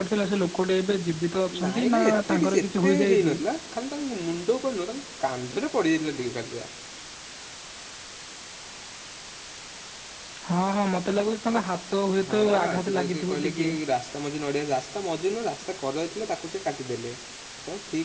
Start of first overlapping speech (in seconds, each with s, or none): 1.6 s